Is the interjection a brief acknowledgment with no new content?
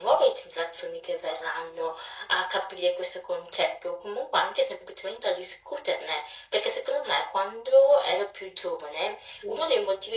Yes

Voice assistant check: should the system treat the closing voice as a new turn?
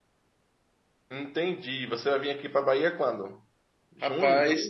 Yes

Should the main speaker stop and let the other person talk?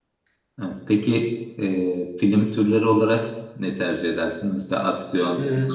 No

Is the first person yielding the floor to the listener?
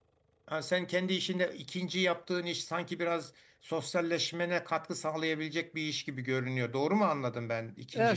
Yes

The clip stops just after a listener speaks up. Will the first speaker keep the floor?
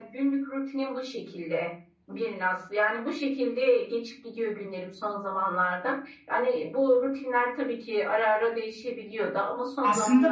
No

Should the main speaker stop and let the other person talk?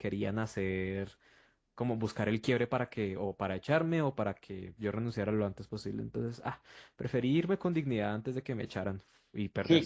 Yes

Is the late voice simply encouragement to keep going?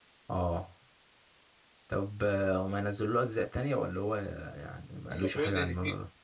No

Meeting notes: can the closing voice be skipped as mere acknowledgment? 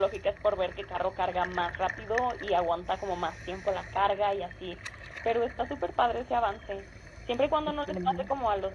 Yes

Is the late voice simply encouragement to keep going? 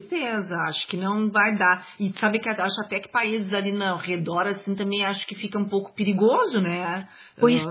No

